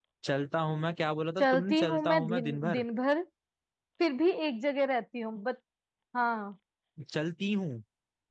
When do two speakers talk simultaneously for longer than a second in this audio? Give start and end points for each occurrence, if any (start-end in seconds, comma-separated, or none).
1.4-2.9